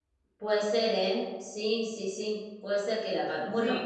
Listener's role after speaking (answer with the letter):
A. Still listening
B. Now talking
A